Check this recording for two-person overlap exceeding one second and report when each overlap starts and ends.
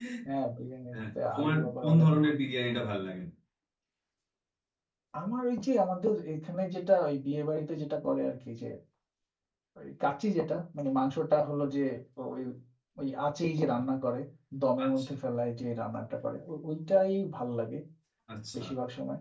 0.9-2.4

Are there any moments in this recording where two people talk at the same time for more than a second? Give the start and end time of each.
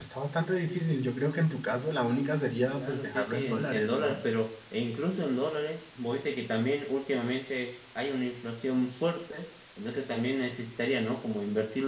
2.8-4.2

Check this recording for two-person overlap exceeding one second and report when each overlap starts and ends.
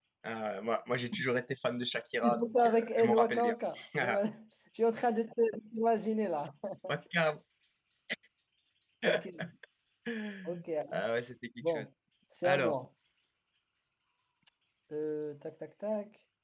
2.2-3.5

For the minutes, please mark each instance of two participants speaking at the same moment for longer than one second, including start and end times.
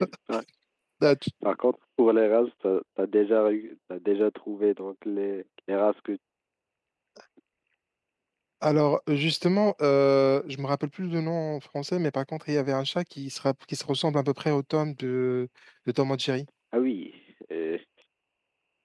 none

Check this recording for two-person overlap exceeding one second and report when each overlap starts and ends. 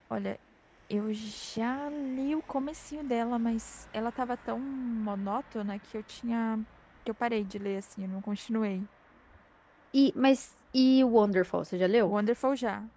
none

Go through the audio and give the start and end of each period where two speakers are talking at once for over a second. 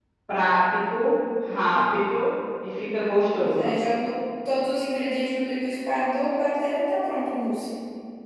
none

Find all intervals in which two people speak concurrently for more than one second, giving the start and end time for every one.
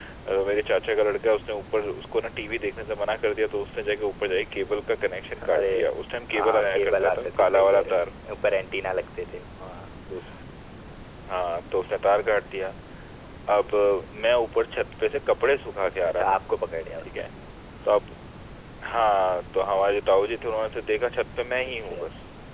6.3-8.1

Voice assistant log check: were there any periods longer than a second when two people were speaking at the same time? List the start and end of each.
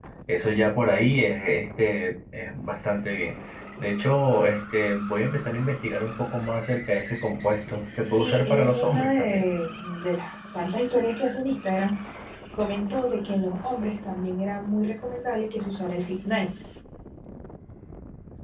8.2-9.4

